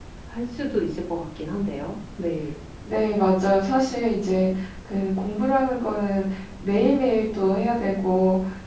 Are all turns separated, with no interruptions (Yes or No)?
Yes